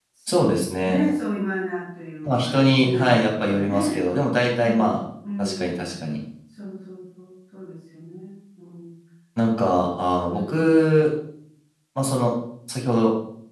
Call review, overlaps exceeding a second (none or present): present